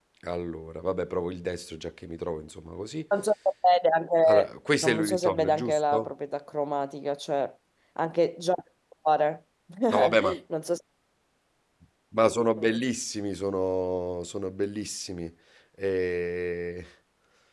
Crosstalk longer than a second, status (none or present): present